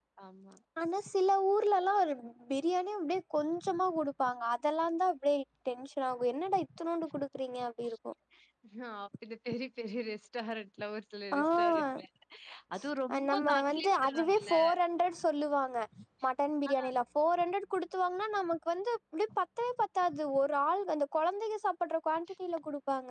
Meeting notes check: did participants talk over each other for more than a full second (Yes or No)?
Yes